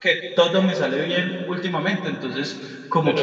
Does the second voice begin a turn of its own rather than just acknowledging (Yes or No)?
Yes